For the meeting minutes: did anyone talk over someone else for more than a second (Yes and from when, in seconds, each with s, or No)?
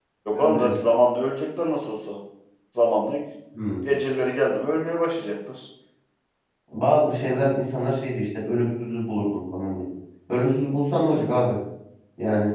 No